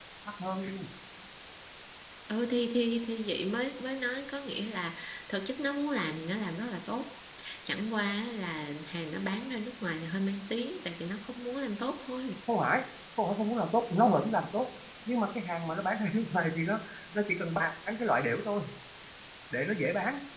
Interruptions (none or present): none